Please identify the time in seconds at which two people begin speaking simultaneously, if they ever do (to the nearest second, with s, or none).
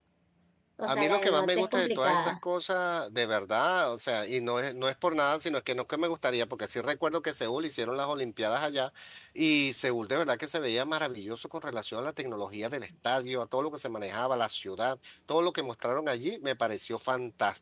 1 s